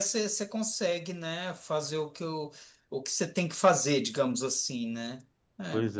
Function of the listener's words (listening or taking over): taking over